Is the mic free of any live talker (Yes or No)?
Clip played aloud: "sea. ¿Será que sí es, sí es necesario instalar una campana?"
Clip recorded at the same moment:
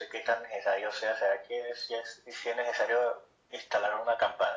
Yes